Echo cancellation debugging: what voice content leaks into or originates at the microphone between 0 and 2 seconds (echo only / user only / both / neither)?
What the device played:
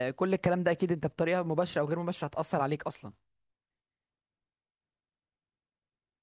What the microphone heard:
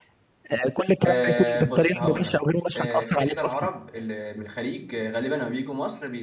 both